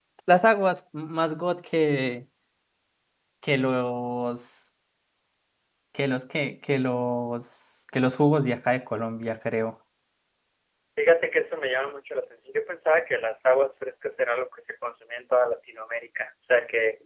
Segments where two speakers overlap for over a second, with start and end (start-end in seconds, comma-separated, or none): none